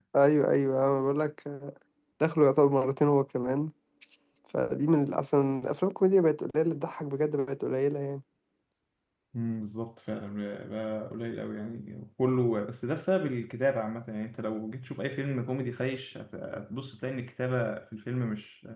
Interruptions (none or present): none